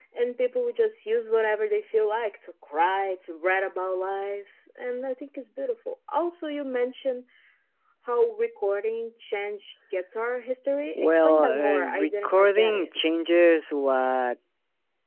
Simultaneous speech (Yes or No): Yes